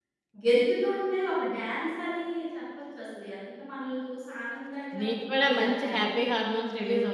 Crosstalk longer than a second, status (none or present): present